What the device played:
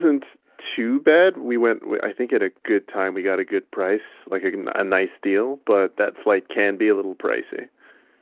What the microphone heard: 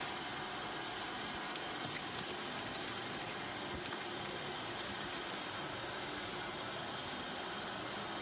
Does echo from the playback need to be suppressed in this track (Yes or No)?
No